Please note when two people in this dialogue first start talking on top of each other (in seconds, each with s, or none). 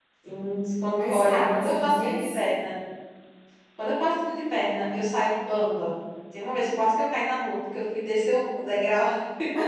1.1 s